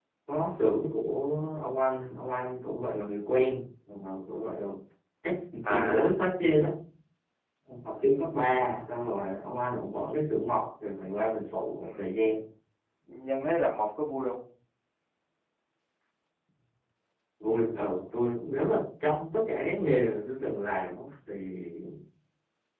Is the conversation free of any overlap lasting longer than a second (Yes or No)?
Yes